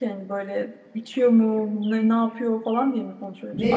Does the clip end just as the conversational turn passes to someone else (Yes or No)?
Yes